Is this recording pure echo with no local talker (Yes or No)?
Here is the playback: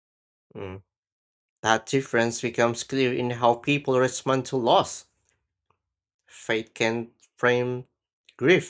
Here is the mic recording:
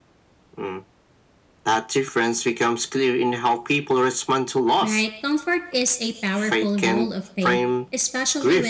No